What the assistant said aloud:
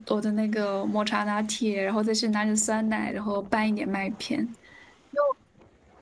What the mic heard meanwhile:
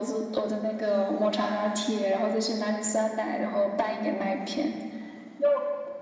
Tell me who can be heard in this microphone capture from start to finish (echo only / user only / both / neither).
echo only